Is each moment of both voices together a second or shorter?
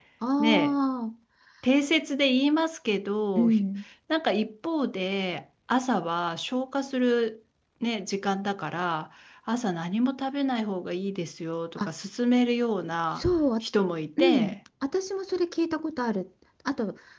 Yes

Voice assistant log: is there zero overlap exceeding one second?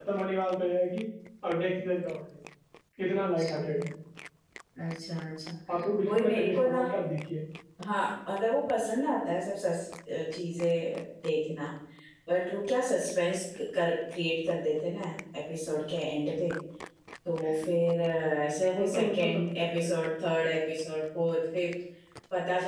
No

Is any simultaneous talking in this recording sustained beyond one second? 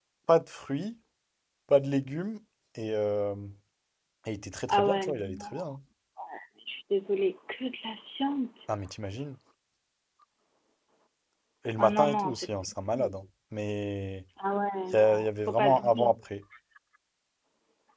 Yes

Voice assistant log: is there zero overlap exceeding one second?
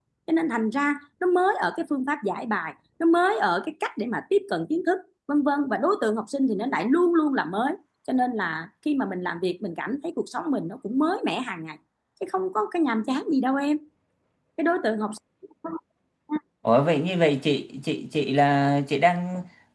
Yes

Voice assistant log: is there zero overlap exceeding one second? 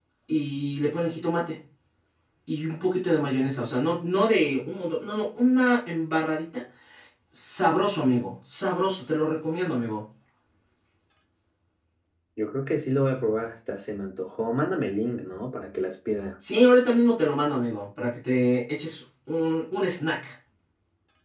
Yes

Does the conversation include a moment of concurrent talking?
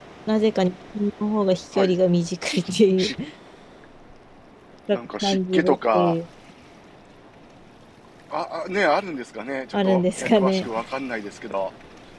Yes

